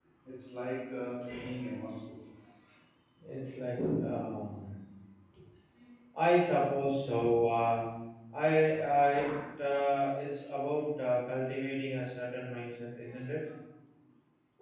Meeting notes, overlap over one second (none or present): none